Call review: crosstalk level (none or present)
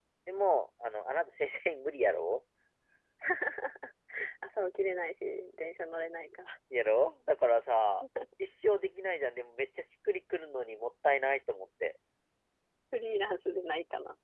none